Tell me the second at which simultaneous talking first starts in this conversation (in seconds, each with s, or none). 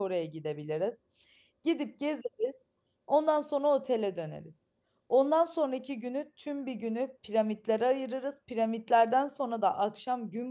none